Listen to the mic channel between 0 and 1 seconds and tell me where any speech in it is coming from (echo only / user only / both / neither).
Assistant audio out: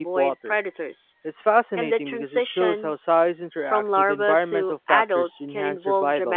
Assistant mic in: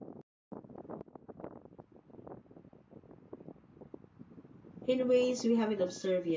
neither